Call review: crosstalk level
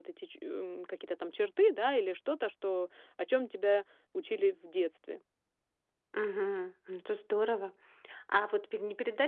none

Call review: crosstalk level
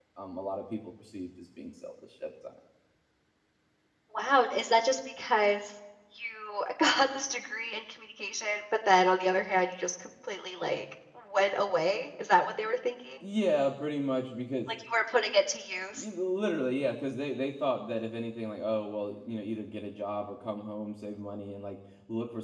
none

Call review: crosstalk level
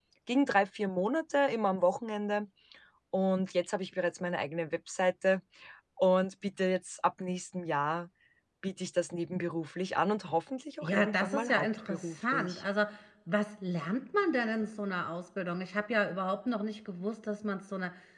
present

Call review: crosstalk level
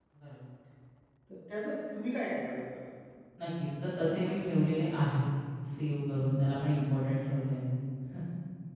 none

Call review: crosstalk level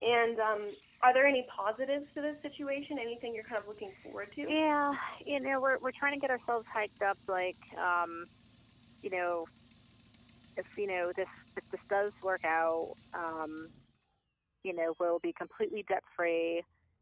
none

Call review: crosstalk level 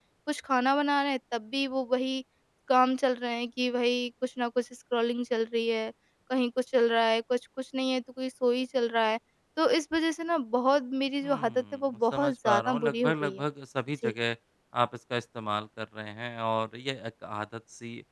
present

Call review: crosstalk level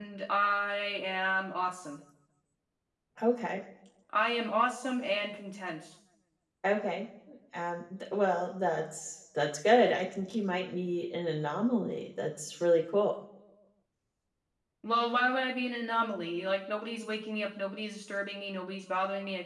none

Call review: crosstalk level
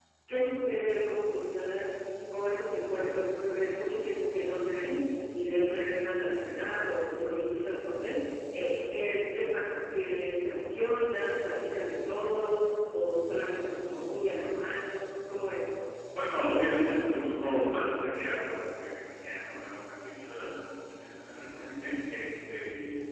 none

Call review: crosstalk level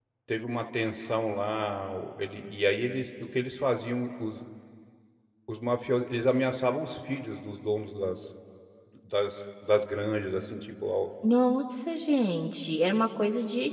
none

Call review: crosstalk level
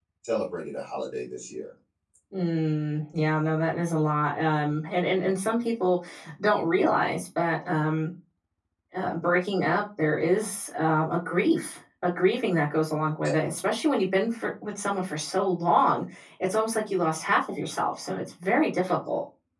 none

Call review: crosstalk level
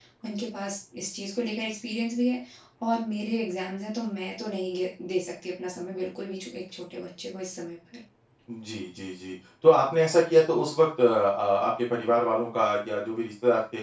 none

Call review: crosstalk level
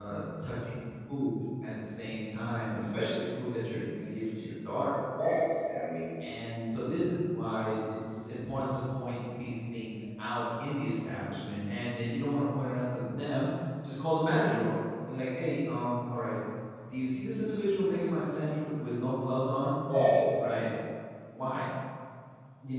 none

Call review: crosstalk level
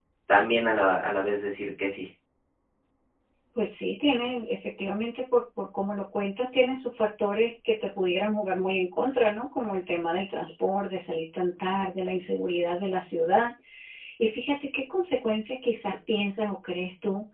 none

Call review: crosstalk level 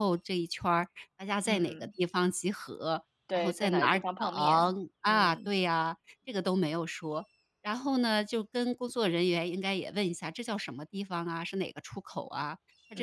present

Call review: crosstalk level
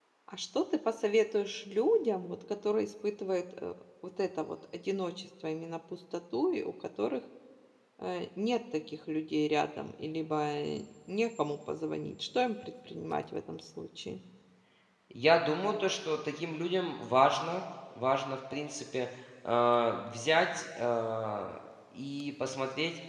none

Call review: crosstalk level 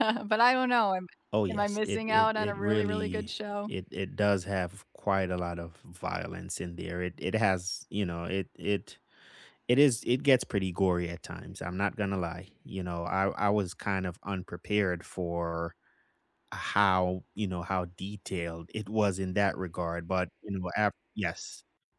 present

